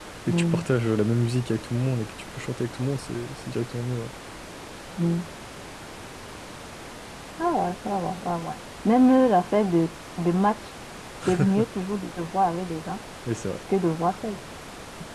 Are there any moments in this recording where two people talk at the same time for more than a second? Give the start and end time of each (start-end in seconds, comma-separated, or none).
none